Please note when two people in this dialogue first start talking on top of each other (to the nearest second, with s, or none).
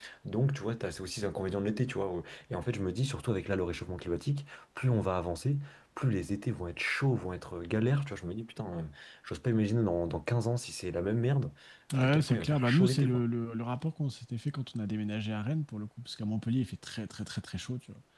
12 s